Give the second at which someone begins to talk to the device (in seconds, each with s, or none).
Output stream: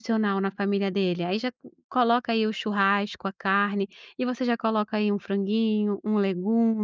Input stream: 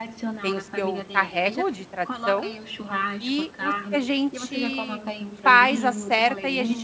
0.4 s